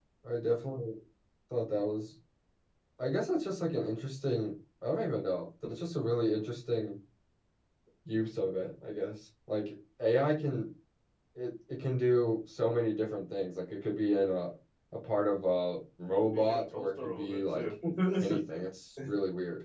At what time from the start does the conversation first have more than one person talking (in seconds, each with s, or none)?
16.3 s